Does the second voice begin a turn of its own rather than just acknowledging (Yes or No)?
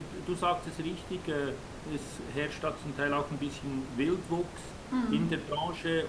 No